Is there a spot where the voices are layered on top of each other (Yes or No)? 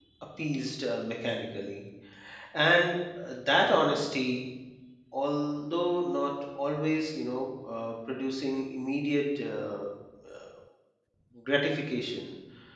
No